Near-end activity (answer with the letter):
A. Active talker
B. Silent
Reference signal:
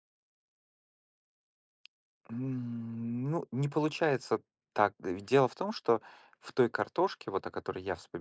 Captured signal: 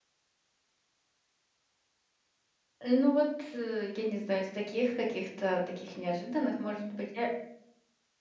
A